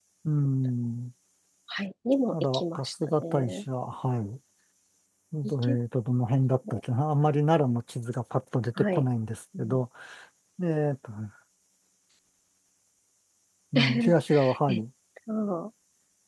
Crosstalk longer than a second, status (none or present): present